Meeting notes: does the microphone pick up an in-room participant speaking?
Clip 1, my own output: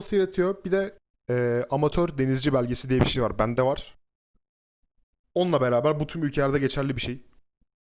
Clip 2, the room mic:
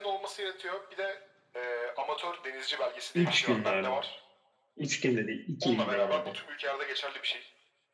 Yes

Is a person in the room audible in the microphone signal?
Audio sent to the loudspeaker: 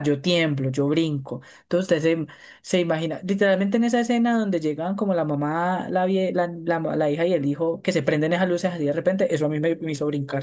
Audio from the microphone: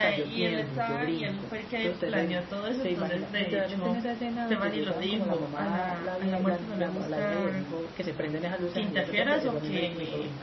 Yes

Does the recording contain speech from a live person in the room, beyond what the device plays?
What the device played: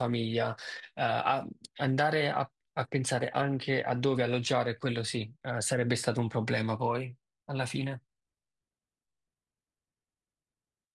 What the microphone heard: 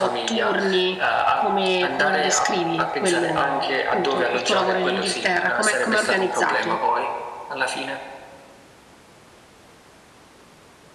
Yes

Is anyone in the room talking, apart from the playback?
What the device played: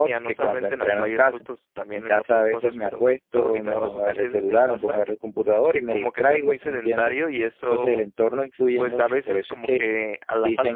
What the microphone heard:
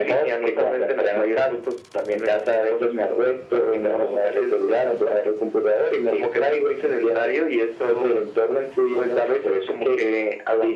No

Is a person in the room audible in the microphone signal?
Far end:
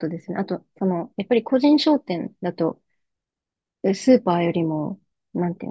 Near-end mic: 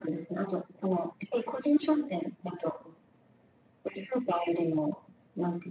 No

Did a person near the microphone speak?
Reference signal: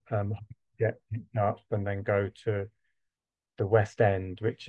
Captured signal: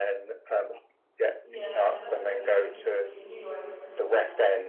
Yes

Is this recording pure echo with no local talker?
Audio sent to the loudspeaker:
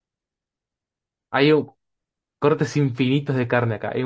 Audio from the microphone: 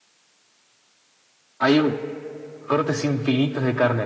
Yes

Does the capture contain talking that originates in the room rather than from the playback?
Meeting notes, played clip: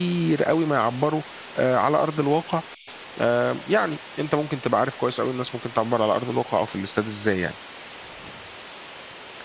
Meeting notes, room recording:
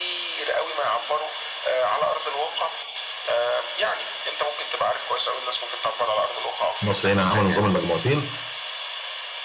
Yes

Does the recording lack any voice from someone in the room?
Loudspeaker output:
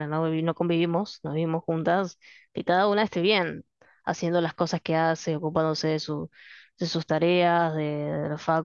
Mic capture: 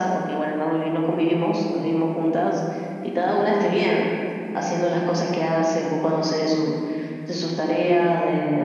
Yes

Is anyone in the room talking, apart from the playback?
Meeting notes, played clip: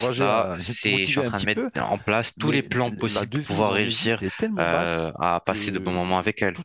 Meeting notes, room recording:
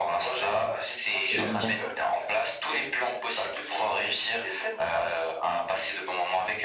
Yes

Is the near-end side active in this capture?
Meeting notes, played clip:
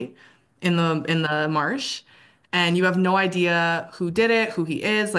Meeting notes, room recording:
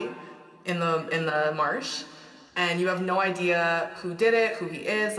No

